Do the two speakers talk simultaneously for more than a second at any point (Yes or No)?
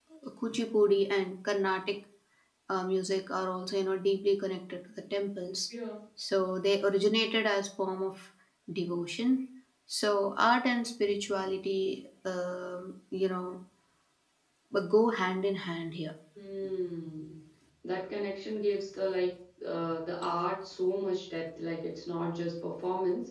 No